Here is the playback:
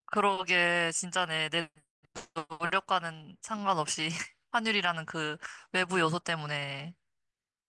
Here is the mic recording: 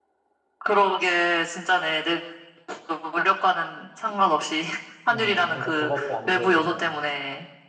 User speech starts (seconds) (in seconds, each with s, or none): 5.1 s